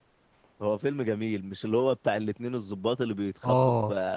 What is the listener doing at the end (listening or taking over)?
listening